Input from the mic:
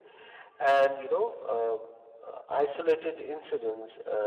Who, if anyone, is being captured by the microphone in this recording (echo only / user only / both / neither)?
echo only